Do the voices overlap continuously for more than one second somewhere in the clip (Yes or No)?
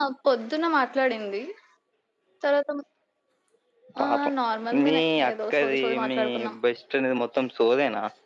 Yes